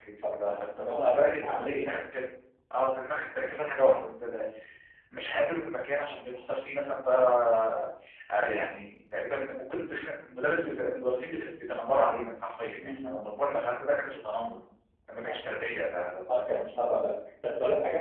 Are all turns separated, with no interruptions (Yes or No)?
No